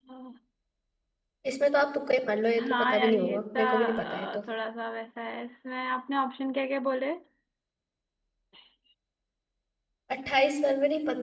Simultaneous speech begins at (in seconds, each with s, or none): 2.6 s